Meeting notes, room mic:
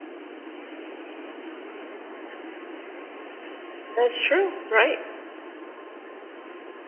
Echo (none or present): none